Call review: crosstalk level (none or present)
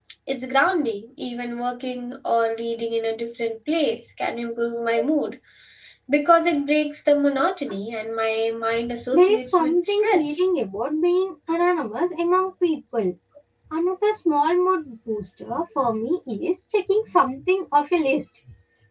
present